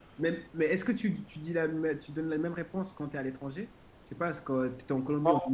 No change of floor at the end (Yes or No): Yes